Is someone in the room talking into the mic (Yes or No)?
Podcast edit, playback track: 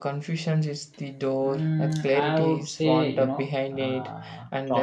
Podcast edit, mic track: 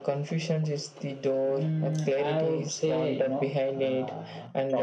No